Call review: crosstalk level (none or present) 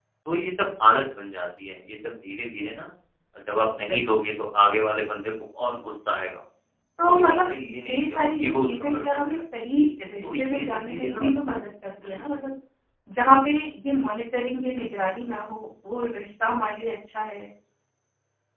present